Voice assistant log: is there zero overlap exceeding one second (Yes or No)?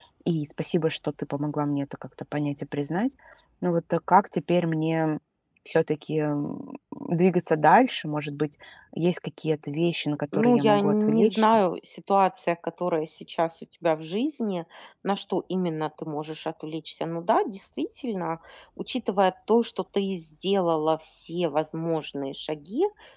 No